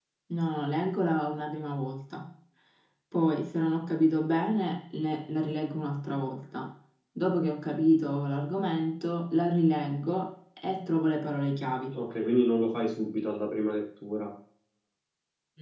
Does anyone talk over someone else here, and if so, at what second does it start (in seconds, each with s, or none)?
none